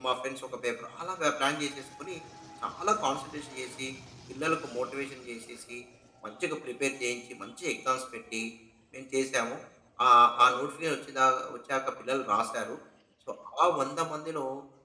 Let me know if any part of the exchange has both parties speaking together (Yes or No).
No